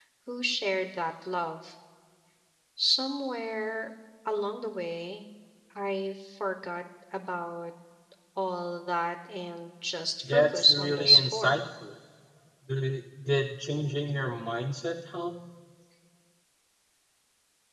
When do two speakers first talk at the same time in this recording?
10.2 s

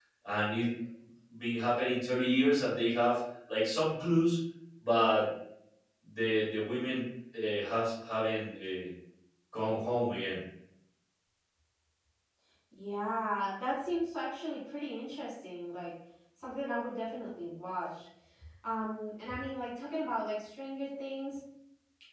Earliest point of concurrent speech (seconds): none

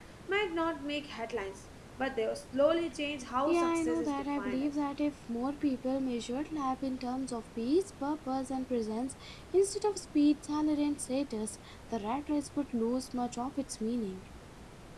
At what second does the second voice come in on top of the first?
3.5 s

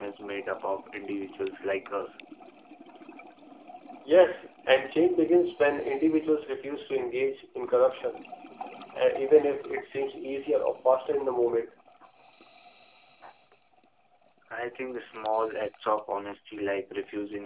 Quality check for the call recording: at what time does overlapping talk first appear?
none

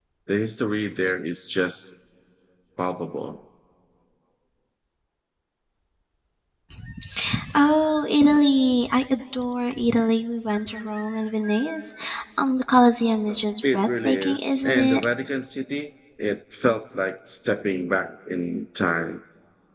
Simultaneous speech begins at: 13.6 s

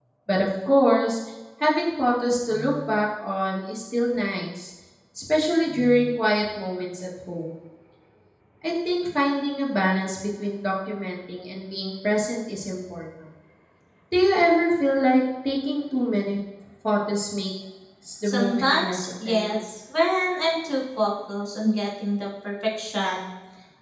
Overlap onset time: 18.2 s

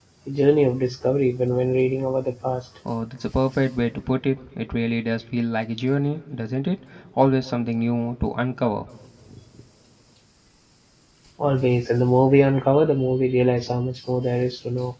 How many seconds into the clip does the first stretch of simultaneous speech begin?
none

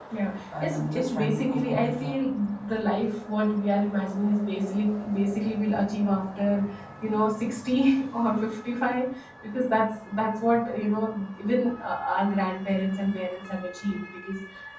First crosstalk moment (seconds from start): 0.6 s

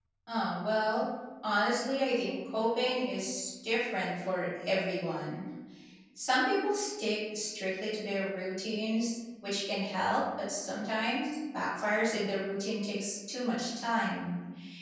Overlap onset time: none

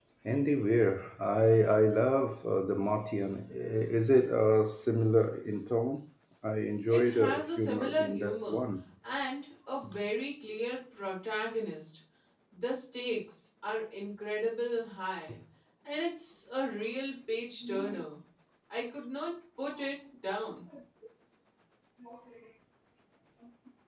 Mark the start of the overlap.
6.9 s

